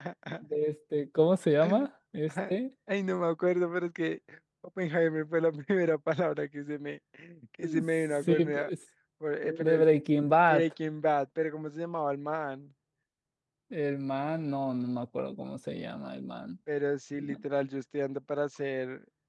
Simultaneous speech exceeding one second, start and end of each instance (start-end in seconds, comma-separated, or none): none